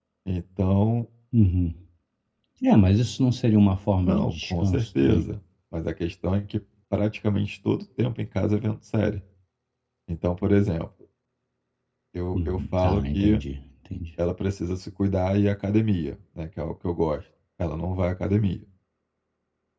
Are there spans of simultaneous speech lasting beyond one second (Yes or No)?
Yes